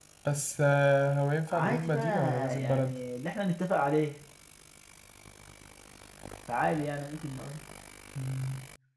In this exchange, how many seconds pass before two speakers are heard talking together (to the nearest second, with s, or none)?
1 s